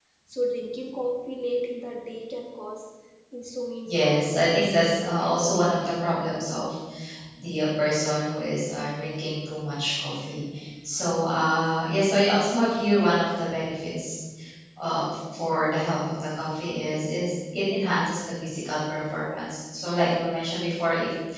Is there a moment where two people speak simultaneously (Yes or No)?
Yes